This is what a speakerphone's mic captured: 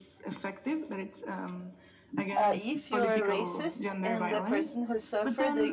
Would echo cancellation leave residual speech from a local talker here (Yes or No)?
Yes